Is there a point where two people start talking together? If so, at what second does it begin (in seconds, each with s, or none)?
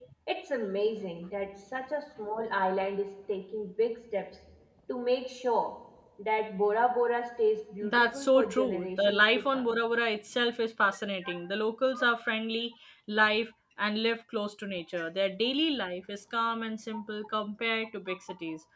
7.8 s